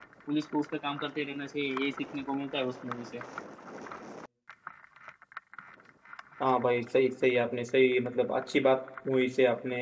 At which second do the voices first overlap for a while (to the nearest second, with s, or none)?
none